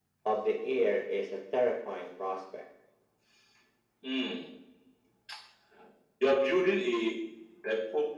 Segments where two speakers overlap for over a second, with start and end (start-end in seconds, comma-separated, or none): none